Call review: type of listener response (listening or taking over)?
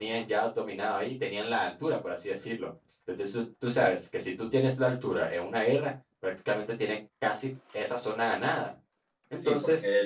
taking over